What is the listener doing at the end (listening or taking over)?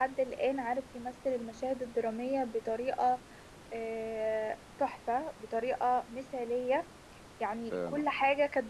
listening